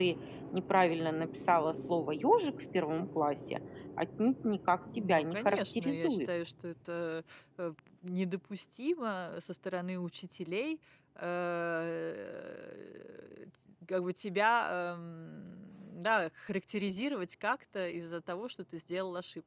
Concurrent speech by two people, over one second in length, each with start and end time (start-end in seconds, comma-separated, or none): 4.9-6.3